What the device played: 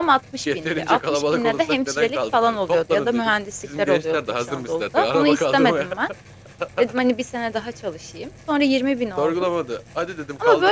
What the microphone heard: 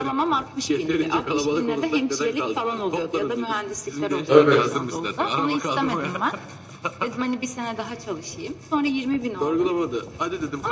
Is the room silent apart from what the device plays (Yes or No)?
No